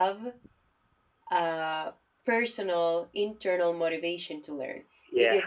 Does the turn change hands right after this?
No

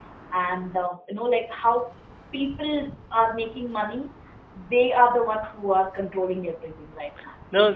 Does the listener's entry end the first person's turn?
Yes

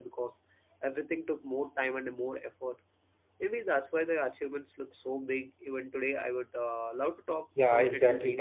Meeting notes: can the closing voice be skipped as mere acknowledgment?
No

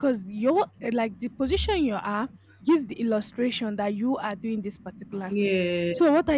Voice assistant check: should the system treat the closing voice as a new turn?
No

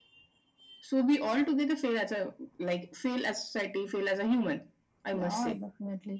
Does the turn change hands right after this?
Yes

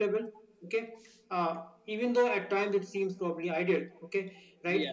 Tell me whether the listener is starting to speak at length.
No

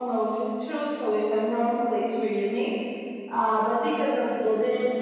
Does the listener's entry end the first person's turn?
No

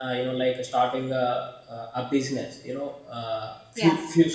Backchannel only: Yes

